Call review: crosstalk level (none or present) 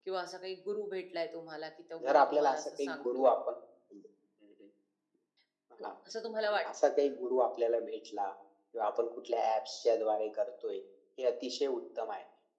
present